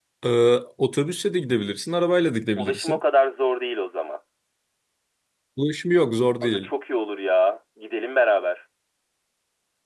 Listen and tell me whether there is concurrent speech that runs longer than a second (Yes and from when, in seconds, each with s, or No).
No